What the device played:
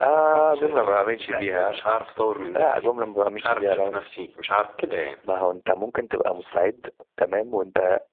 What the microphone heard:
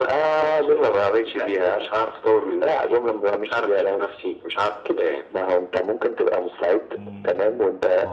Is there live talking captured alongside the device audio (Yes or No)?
Yes